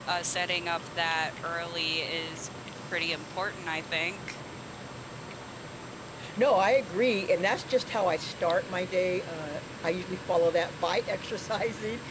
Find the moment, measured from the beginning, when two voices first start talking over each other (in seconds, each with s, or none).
none